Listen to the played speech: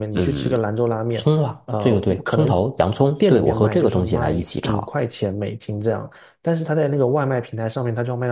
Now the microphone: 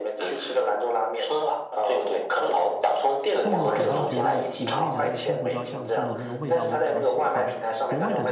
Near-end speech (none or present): present